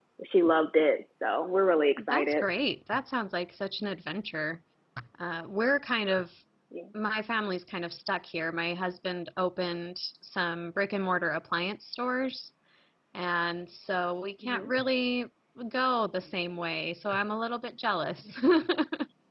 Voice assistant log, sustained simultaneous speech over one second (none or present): none